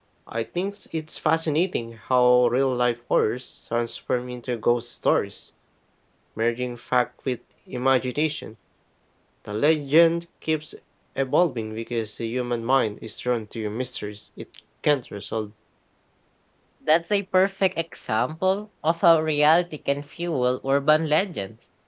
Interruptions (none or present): none